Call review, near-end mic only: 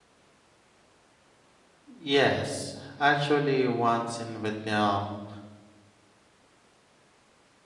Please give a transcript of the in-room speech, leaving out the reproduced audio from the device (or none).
Yes, actually, once in Vietnam,